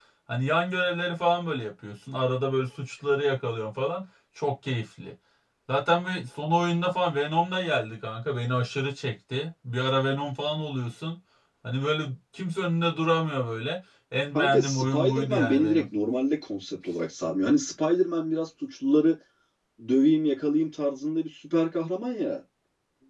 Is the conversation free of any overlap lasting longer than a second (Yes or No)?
No